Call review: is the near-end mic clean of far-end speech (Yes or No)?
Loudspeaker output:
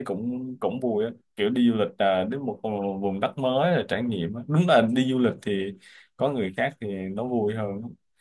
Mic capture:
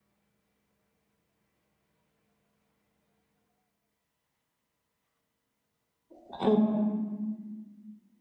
Yes